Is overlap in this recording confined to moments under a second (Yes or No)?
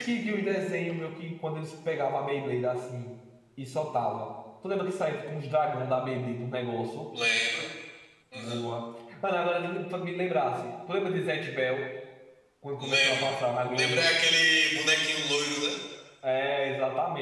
Yes